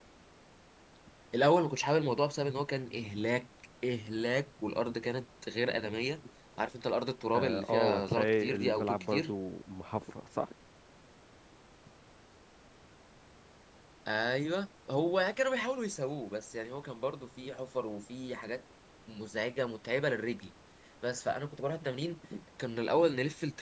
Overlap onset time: 7 s

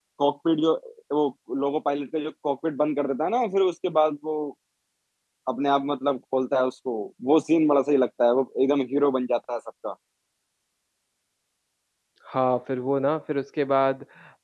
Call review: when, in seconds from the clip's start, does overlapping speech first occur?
none

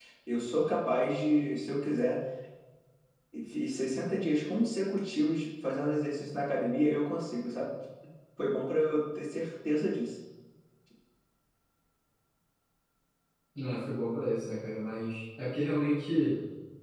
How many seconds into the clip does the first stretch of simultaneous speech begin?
none

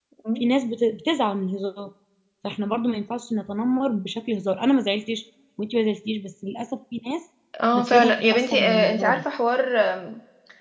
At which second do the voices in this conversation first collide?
8 s

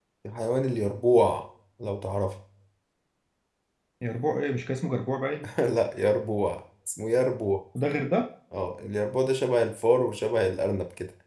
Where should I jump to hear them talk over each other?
none

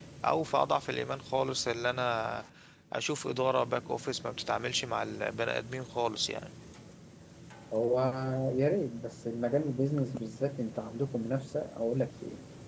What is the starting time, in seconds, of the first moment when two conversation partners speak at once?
none

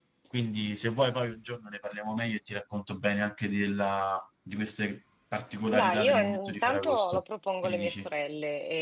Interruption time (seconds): 6 s

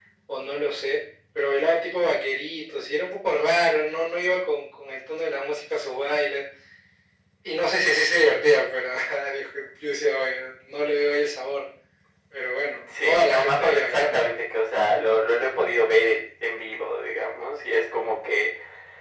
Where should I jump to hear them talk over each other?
13 s

